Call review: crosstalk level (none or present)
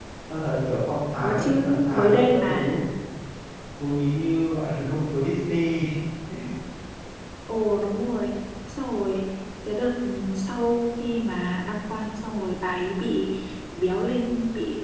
present